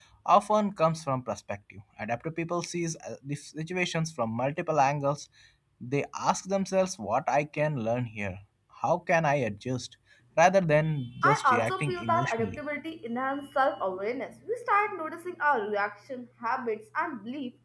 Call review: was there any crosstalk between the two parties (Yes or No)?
Yes